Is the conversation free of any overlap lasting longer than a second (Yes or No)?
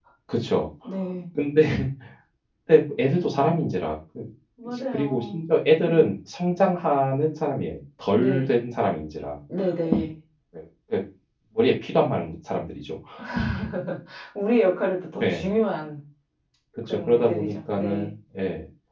No